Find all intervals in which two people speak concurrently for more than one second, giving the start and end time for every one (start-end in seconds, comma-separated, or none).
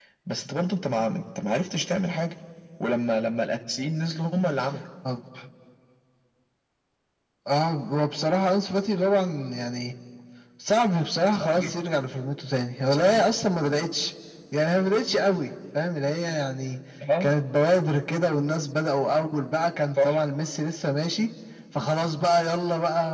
none